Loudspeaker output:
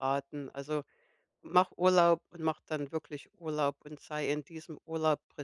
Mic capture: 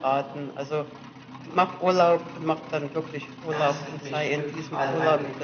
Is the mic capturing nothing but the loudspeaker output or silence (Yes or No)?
No